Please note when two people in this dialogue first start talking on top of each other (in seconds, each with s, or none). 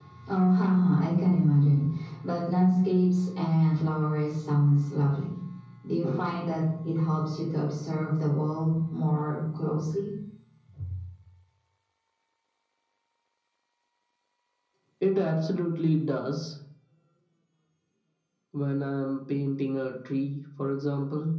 none